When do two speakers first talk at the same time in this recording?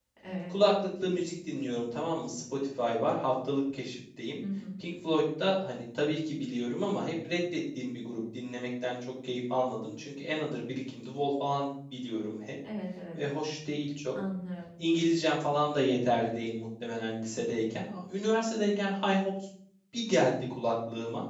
none

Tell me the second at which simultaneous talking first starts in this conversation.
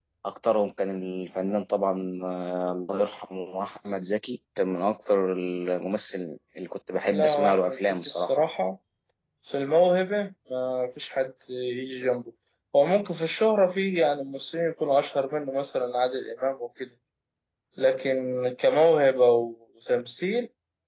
7.1 s

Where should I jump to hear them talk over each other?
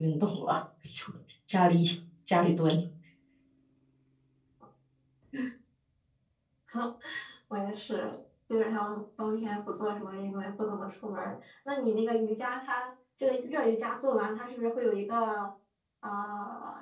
none

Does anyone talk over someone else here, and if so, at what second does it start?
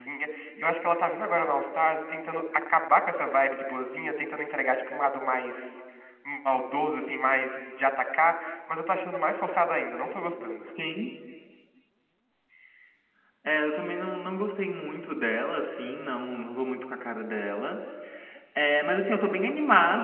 none

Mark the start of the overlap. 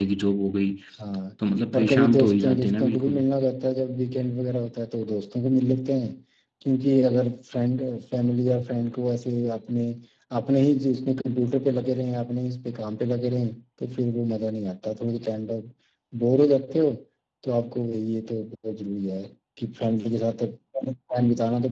1.7 s

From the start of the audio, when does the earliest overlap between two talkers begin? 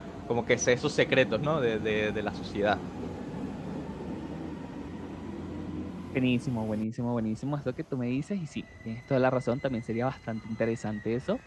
none

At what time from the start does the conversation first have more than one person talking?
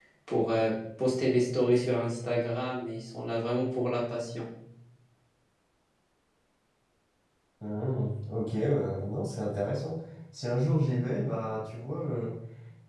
none

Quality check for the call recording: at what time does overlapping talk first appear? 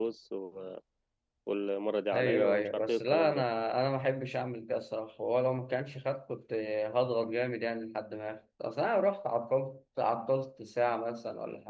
2.1 s

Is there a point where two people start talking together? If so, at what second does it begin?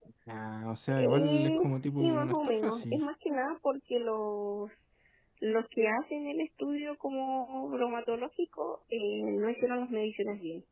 0.9 s

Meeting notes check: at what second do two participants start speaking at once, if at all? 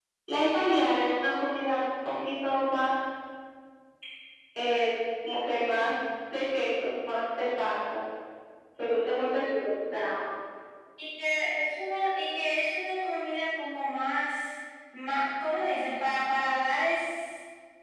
none

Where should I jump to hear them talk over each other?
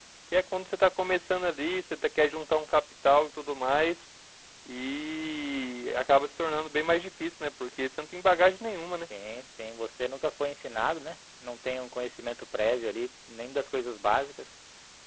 none

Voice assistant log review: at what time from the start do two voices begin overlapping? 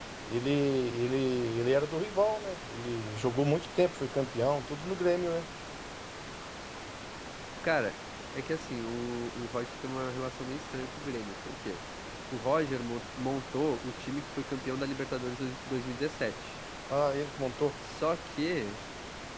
none

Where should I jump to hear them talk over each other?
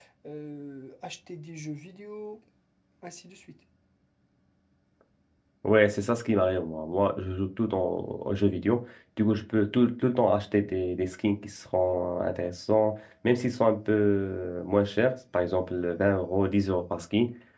none

